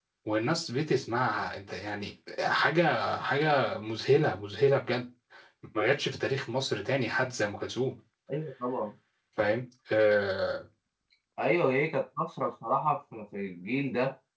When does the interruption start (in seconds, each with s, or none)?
none